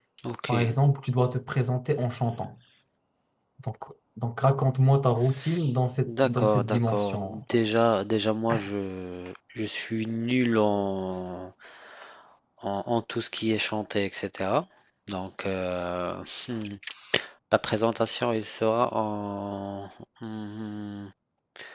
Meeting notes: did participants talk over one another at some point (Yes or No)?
Yes